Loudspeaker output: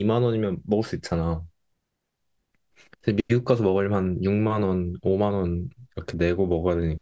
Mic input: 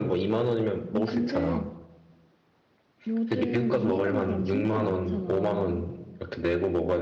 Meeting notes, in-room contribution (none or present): present